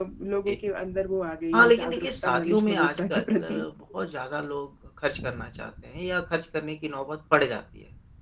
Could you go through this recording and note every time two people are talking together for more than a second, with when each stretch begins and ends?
1.5-3.6

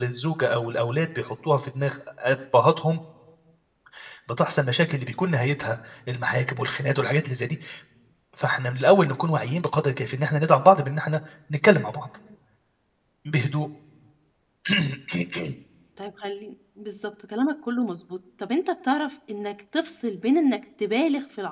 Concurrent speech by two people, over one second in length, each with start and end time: none

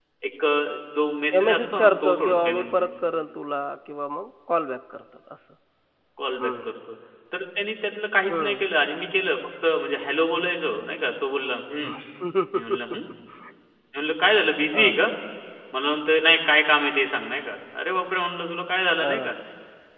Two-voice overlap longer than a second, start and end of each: 1.3-2.9

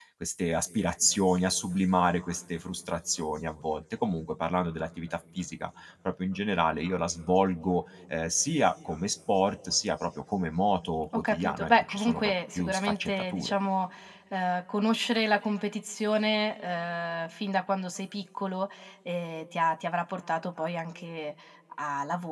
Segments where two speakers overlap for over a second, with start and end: 11.1-13.5

